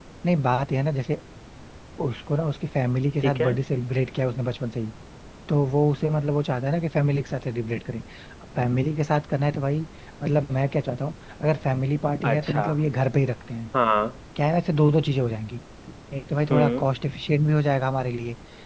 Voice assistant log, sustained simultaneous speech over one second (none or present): none